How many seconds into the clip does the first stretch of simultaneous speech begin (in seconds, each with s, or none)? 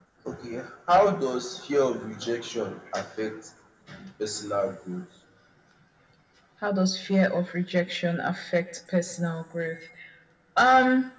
none